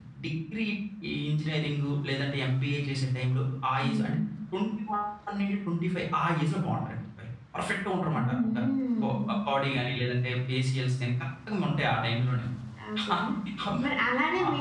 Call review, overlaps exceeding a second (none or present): none